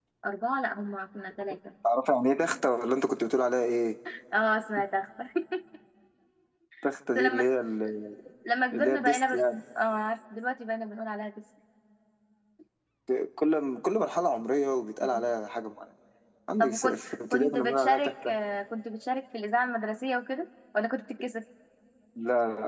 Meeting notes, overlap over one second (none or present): present